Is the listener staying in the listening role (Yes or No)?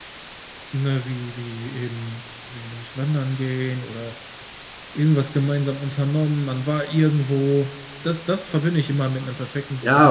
No